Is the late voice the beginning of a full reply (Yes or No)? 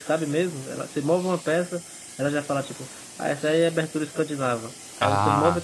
No